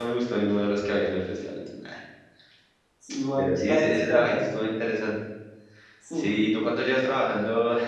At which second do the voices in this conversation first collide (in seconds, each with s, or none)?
3.4 s